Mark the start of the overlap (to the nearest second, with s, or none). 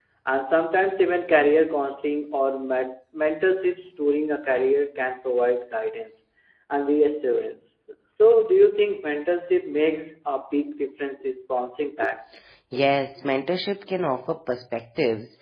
none